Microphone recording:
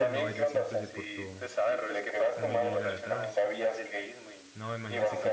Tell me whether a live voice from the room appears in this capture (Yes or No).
Yes